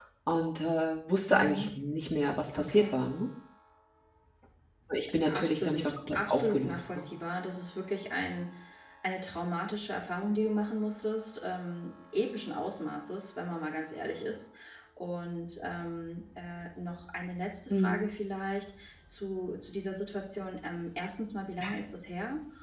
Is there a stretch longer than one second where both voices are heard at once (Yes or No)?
Yes